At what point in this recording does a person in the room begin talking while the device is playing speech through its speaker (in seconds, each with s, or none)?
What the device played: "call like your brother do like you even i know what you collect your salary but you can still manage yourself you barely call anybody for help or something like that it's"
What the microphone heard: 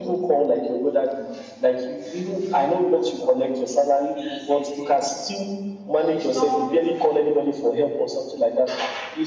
none